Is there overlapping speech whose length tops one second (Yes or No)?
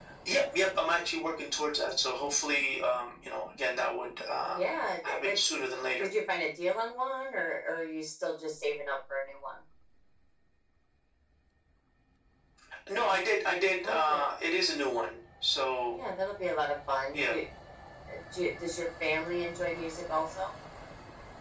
No